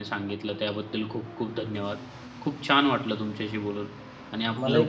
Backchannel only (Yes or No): No